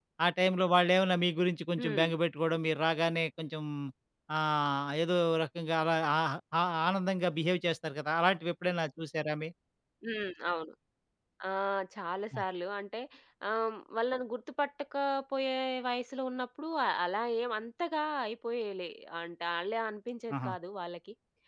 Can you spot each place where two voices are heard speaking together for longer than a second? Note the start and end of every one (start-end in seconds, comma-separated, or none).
none